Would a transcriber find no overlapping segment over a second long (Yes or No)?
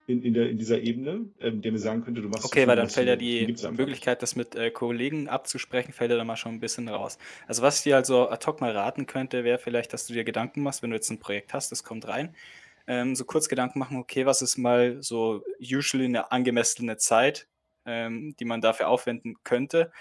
No